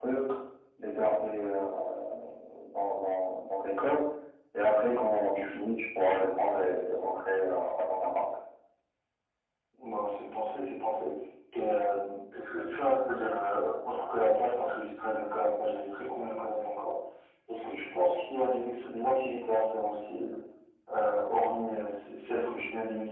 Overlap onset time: none

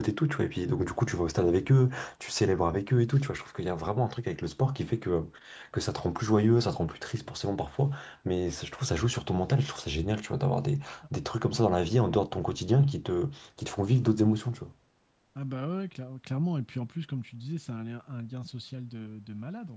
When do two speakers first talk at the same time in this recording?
none

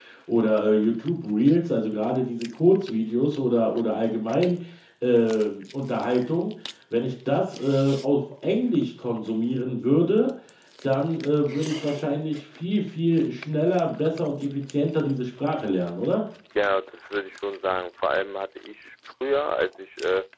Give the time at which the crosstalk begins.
none

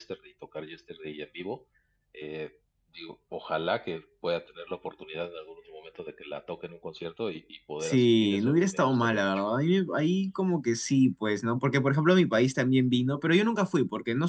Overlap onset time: 7.8 s

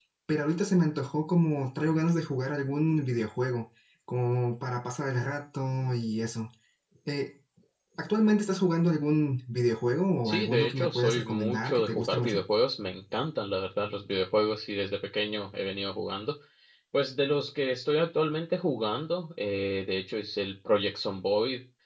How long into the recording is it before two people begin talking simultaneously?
10.2 s

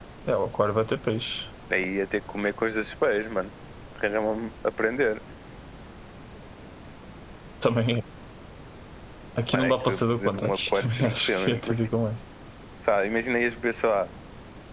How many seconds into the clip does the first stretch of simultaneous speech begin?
9.5 s

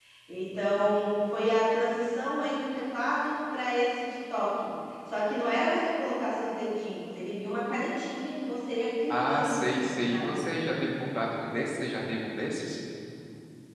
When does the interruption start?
9.1 s

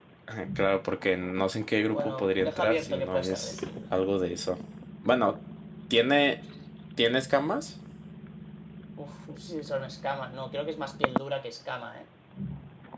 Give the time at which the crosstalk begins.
1.8 s

